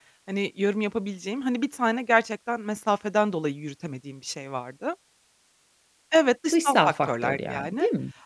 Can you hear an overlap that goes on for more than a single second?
Yes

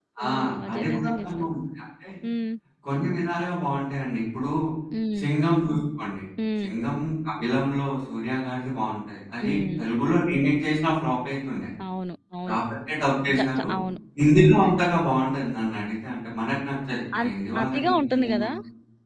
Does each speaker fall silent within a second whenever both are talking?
No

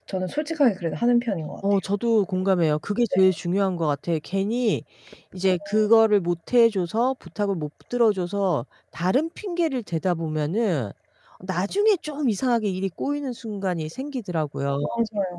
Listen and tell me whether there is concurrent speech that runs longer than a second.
No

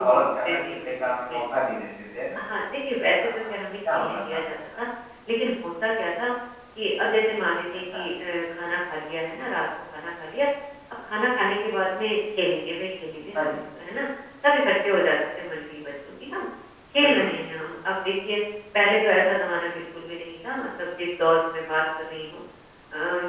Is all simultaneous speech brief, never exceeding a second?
No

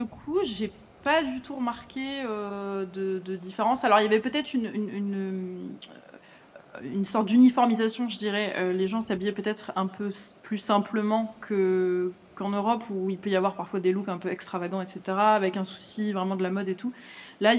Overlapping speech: No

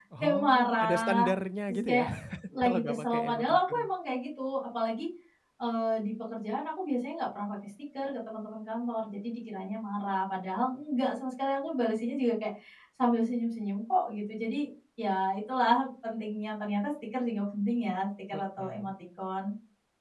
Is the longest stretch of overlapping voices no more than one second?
No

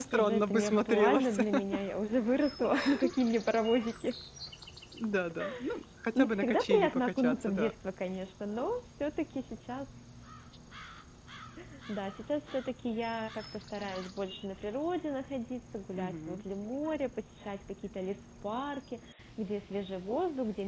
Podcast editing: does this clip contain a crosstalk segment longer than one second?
Yes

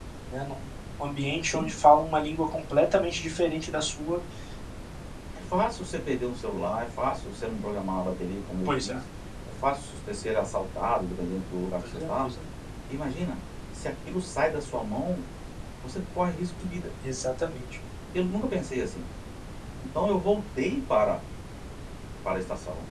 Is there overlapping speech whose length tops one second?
No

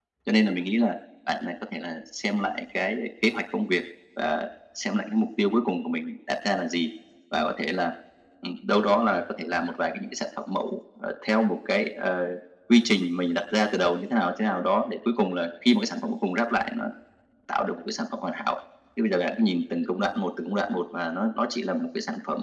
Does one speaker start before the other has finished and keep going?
No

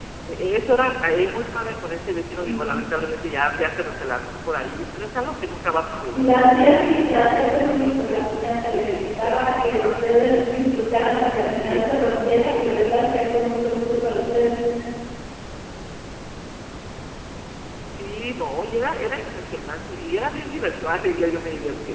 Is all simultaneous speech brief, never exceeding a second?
No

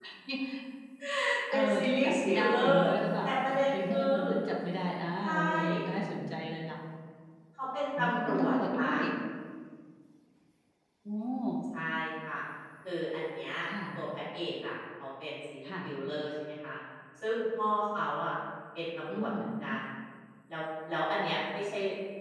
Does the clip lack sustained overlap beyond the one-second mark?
No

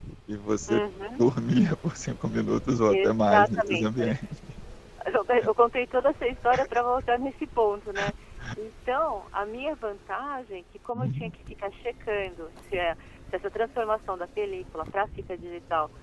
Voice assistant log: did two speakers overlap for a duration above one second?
Yes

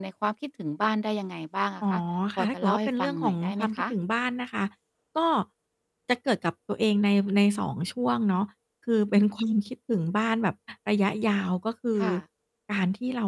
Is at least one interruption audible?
Yes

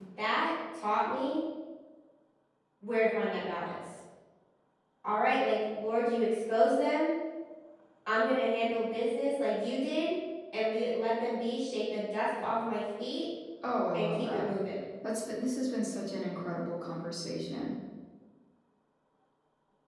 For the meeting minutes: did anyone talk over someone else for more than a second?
No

